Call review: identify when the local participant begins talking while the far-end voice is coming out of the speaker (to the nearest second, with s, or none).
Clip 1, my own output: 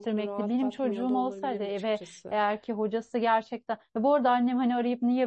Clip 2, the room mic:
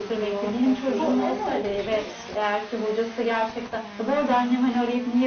1 s